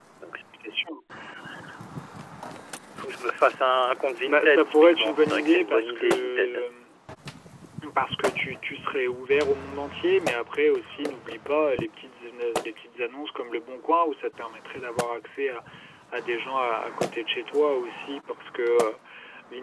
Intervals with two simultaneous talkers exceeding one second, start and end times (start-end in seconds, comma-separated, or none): 4.3-6.6